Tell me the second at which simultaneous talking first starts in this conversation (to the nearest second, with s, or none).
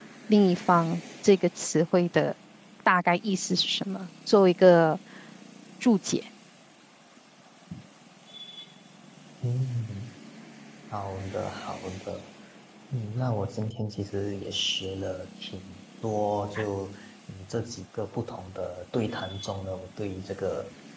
none